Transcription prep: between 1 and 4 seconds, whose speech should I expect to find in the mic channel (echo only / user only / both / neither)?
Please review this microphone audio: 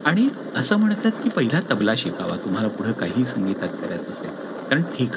echo only